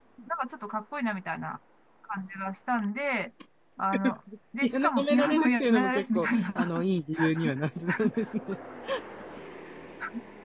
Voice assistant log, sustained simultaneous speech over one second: present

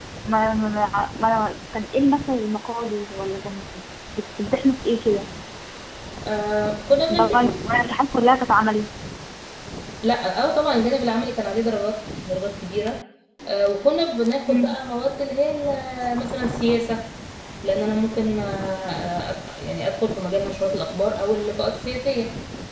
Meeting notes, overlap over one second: none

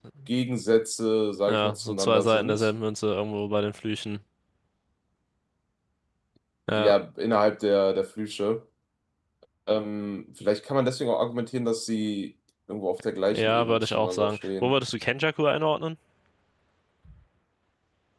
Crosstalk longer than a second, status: present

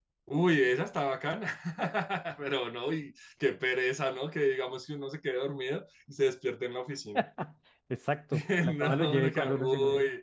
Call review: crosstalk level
present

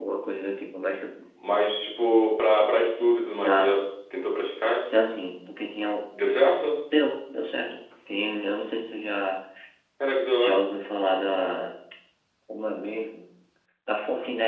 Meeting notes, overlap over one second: none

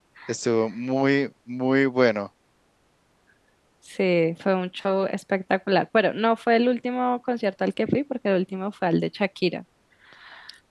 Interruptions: none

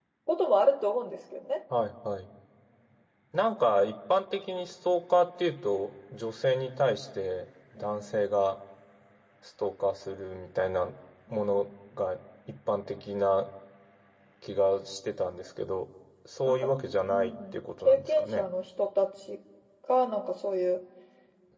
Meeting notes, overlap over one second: present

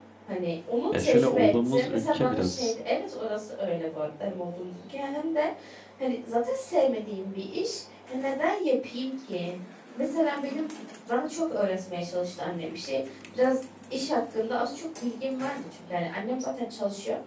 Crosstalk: present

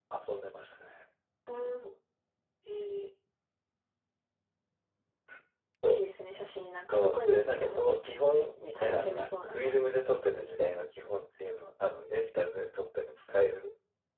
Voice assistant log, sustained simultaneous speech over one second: present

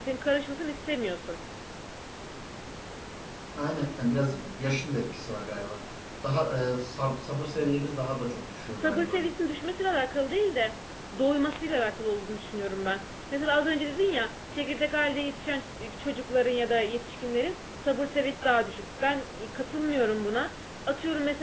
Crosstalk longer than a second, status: none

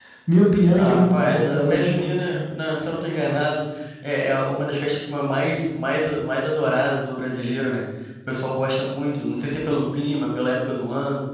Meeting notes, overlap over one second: present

